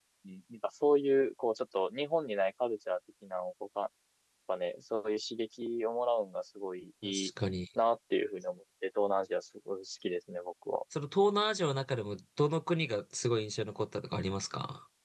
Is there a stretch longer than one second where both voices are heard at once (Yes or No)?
No